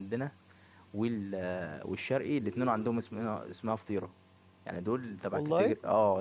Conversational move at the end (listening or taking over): listening